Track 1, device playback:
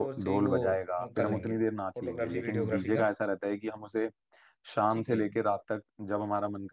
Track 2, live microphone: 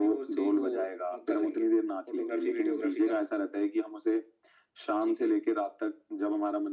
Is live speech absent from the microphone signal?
Yes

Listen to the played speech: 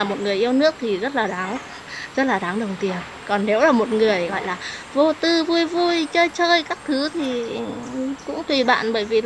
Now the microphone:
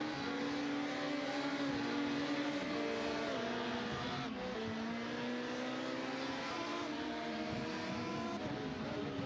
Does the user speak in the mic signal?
No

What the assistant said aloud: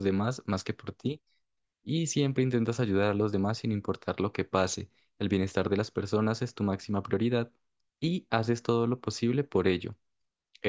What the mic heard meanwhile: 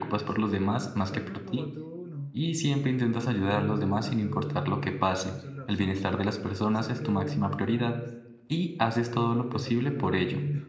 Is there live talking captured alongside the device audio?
Yes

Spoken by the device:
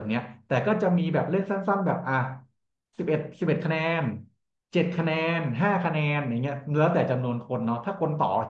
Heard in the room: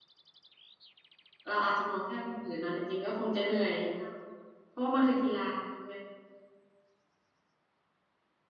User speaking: Yes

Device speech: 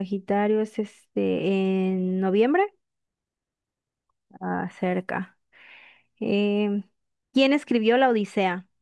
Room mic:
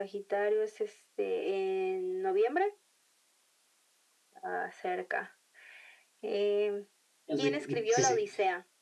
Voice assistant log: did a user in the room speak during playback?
Yes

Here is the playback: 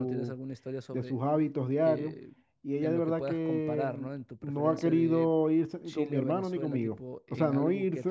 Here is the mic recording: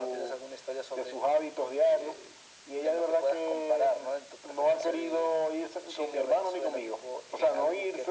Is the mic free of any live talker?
Yes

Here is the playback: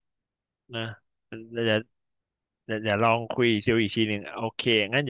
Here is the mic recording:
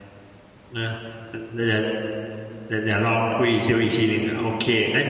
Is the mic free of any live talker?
Yes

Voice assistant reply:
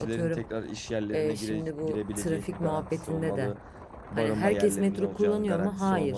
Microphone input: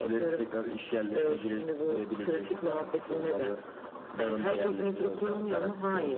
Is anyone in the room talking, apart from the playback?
No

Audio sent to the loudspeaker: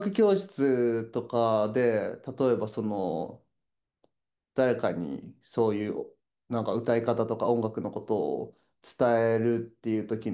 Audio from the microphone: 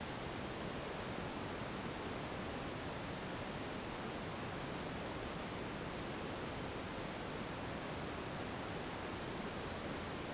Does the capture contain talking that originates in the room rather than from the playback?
No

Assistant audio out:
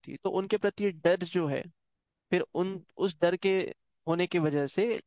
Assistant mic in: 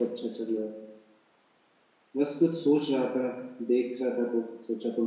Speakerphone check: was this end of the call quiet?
No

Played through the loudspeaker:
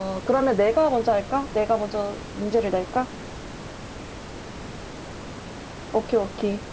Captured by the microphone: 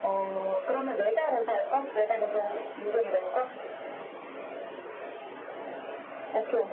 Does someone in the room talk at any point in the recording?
No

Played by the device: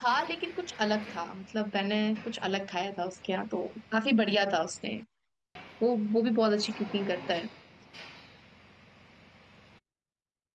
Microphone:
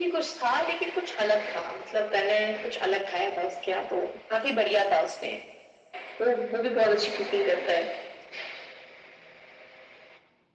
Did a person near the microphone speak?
No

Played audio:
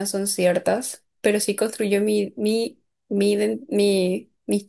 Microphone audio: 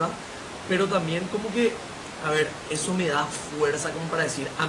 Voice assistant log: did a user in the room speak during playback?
Yes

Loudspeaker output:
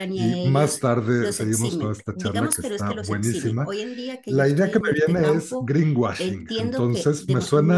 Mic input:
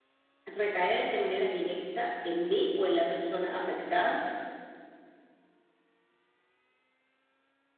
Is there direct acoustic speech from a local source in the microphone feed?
Yes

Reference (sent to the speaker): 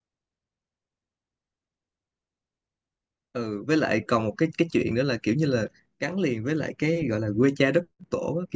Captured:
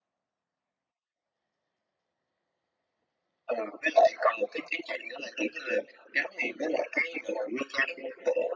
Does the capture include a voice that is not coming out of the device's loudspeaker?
No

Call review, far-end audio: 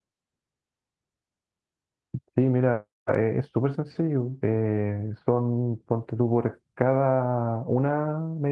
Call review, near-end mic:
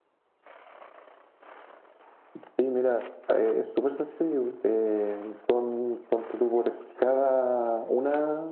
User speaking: No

